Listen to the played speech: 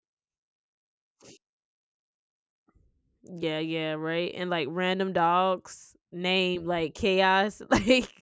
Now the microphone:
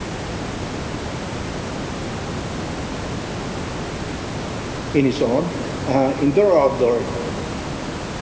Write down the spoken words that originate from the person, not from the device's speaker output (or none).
in its own, uh, indoor or outdoor.